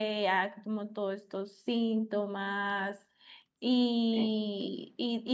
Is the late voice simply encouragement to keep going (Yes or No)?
Yes